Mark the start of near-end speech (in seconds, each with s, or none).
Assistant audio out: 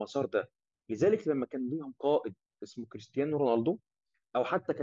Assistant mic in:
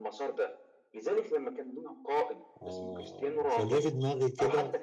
2.6 s